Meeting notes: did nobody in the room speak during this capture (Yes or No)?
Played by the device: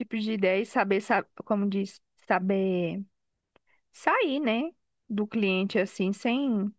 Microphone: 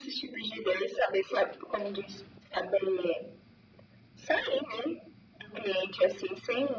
Yes